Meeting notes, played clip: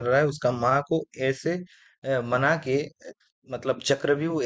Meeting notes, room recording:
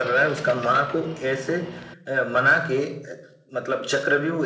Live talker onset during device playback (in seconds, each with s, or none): none